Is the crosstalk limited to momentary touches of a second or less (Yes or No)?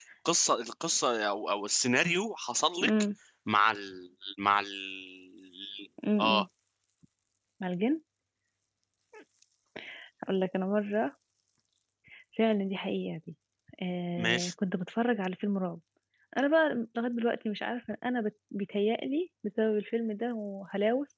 Yes